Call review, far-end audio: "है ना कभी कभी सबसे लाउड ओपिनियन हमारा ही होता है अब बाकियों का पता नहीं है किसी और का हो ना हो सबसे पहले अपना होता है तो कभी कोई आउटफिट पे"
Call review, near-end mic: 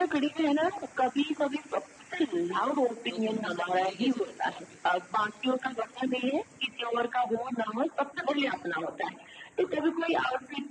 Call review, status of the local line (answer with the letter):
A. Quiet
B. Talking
B